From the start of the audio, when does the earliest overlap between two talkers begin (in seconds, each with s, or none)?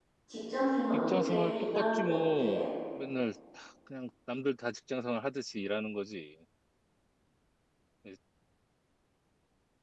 1.1 s